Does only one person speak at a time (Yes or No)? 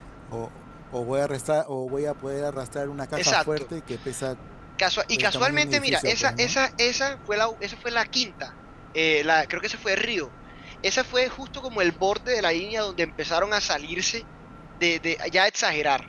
No